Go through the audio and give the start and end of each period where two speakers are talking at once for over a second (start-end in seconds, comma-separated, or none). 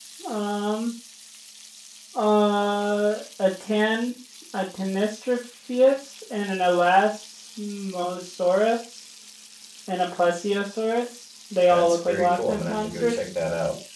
11.7-13.3